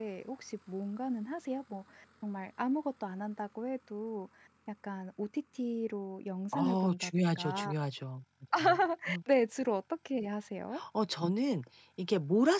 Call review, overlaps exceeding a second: present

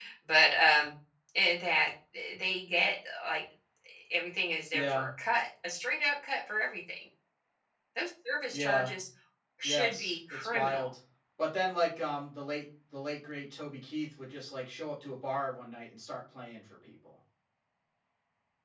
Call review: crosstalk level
present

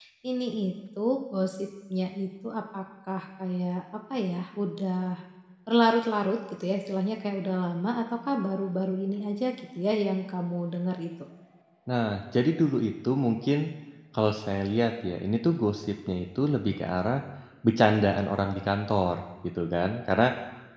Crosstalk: none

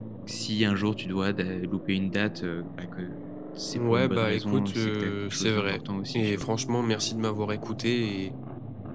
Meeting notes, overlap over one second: present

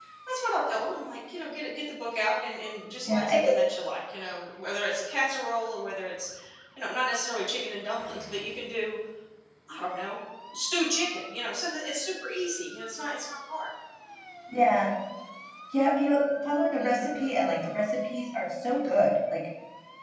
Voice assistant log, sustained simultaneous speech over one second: none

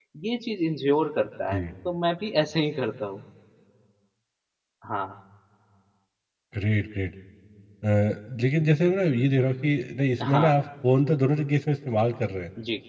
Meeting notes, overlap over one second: none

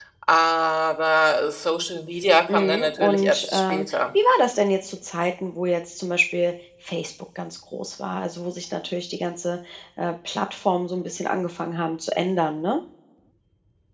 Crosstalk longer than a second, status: present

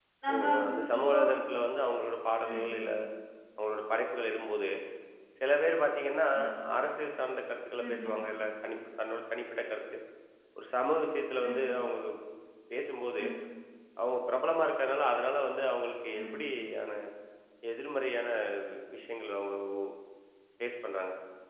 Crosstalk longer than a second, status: none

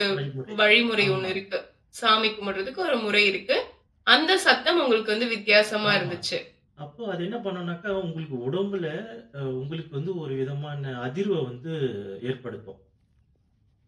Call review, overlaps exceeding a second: none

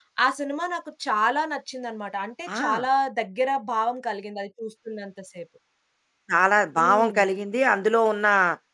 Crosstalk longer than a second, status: none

